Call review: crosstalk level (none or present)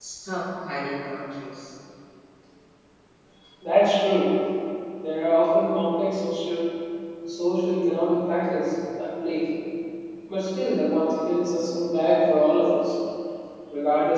none